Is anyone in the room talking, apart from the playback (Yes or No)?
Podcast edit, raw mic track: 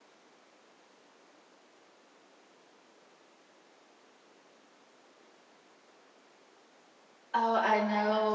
Yes